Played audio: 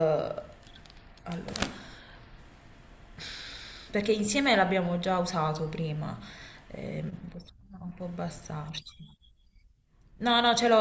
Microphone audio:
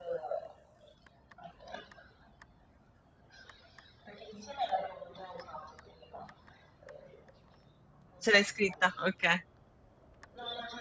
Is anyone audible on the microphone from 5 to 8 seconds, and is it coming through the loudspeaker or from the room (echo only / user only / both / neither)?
echo only